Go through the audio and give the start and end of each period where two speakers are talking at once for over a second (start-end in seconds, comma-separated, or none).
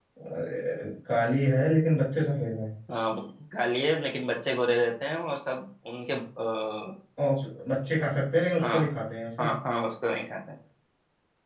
none